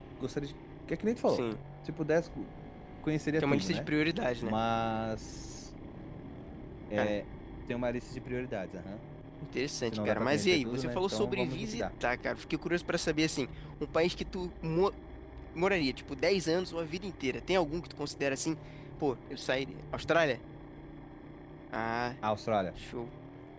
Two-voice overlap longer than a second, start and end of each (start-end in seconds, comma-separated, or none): 9.9-11.8